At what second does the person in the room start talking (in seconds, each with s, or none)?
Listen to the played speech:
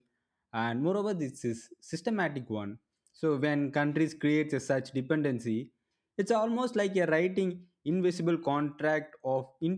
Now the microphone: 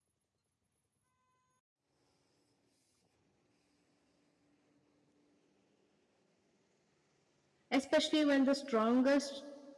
7.7 s